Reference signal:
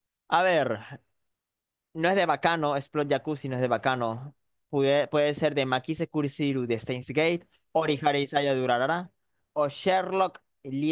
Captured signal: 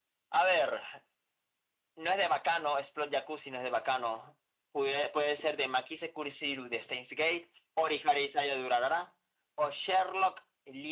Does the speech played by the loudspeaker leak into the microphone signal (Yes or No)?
Yes